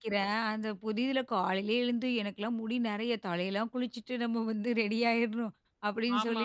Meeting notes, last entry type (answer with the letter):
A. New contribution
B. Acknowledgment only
B